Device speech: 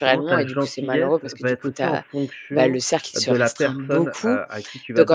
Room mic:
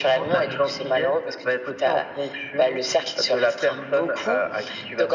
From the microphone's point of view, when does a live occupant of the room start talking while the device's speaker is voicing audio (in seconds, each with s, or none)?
none